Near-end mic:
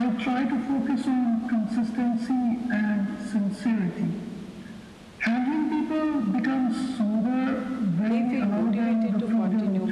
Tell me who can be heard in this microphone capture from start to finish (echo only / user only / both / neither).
both